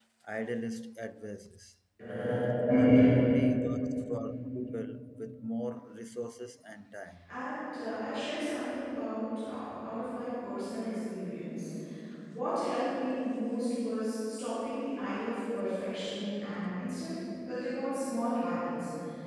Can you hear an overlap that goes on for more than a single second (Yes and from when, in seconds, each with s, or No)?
No